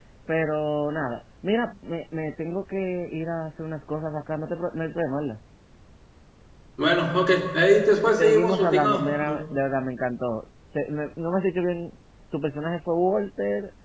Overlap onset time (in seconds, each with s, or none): 8.2 s